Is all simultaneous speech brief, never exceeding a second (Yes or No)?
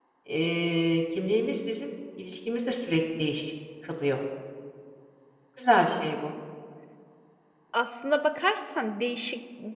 Yes